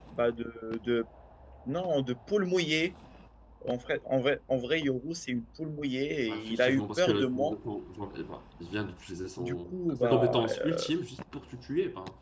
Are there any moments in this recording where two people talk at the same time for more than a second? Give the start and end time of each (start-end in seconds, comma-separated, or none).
6.3-7.5, 9.4-10.8